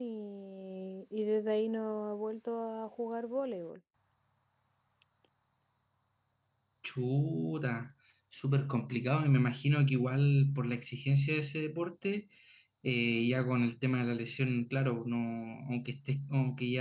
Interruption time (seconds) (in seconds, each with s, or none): none